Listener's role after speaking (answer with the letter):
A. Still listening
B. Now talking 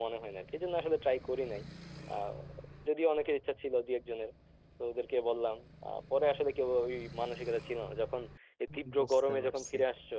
A